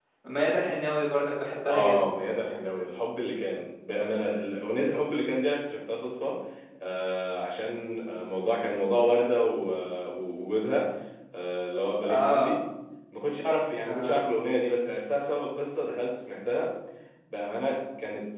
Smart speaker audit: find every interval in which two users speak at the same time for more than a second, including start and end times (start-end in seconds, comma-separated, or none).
none